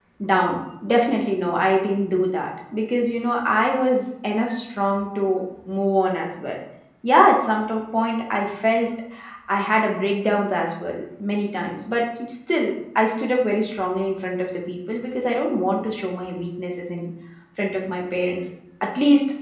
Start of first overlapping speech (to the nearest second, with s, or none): none